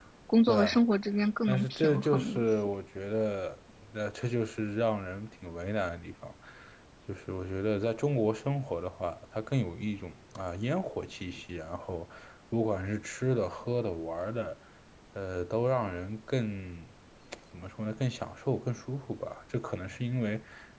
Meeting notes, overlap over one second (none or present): present